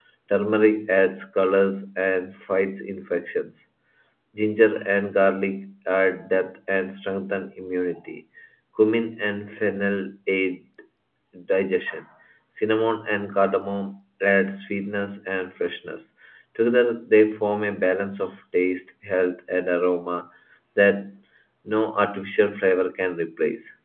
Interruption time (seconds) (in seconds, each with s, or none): none